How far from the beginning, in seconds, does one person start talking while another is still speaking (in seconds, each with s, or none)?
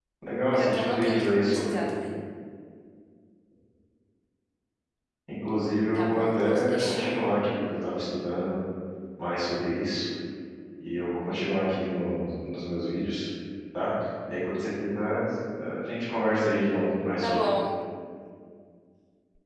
0.5 s